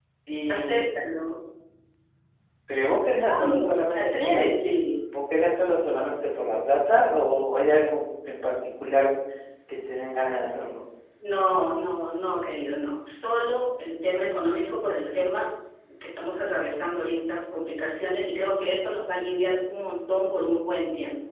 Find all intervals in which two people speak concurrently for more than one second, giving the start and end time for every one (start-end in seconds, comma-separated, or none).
3.3-4.5